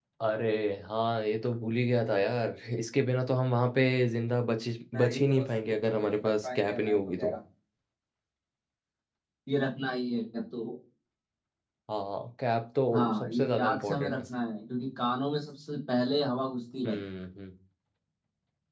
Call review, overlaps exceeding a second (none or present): present